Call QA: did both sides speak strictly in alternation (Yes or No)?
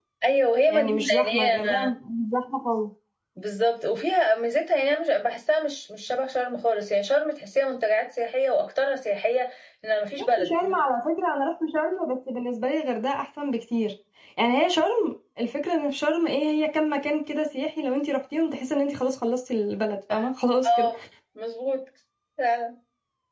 No